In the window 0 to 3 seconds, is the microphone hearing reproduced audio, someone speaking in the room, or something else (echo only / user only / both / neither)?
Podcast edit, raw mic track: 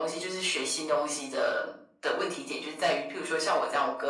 echo only